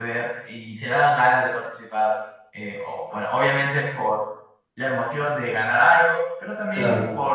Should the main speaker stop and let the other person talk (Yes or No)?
No